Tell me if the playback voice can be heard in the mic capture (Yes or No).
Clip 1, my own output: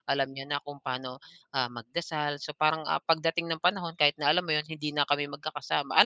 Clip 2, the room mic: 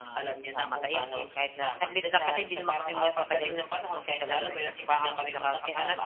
Yes